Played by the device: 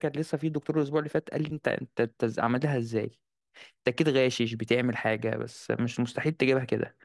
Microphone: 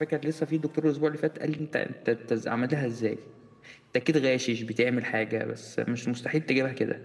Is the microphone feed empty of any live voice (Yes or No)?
Yes